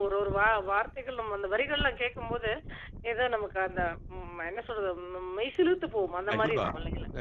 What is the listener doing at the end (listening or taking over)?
taking over